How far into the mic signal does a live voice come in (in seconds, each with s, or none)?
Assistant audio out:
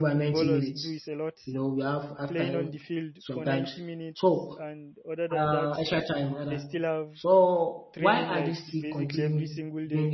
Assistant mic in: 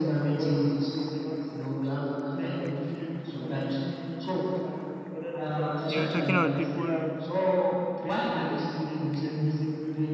5.9 s